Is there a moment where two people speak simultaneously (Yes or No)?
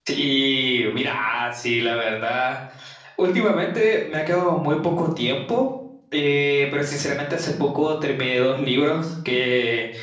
No